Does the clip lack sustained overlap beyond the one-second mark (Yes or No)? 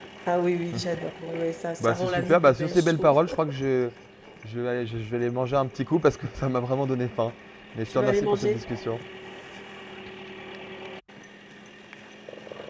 No